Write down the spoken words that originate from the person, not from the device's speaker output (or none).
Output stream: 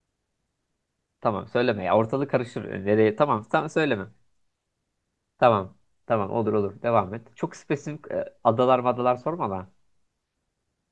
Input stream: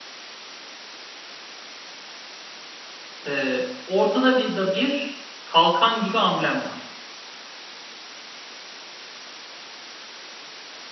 E, ortada bir da bir kalkan gibi amblem var.